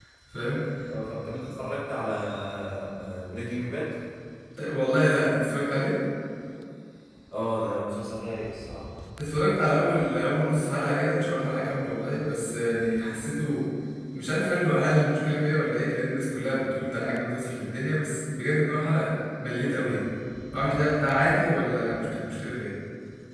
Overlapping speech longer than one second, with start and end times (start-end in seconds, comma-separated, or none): none